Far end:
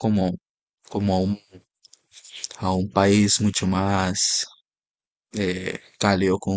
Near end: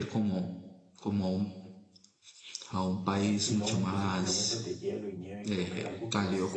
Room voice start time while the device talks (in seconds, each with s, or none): 3.1 s